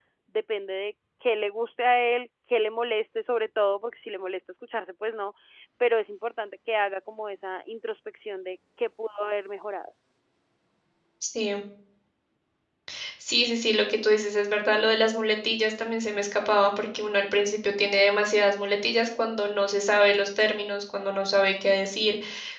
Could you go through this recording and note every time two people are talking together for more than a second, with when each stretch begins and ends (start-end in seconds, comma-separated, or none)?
none